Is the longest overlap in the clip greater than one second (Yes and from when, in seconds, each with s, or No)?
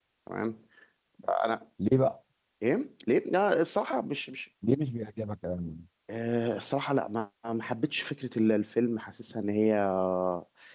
No